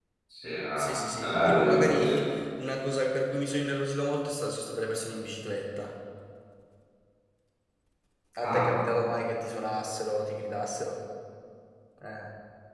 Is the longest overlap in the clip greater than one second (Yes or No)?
Yes